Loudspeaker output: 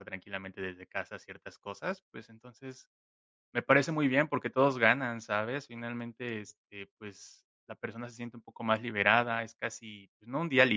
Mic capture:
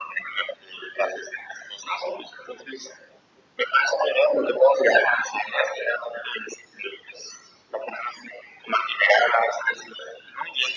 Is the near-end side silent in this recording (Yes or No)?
Yes